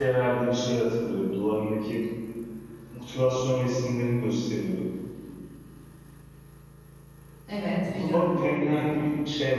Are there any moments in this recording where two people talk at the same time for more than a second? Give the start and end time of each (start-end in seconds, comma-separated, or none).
7.8-9.1